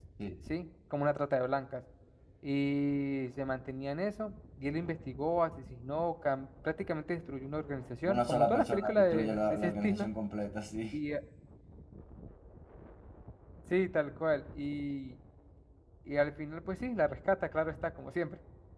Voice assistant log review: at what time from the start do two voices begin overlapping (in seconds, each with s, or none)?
8.1 s